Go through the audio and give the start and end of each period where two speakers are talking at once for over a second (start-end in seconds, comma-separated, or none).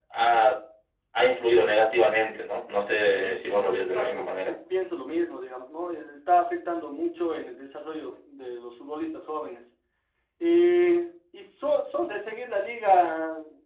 3.2-4.5